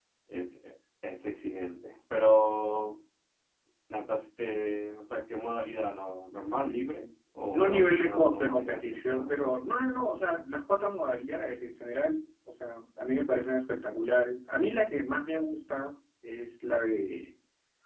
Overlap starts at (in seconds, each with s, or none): 7.5 s